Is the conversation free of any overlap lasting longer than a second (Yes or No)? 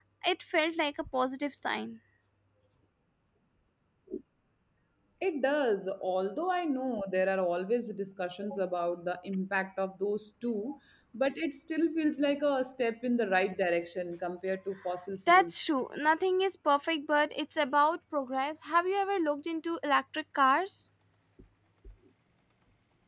Yes